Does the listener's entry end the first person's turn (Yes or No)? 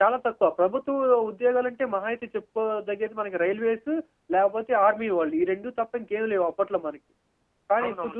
No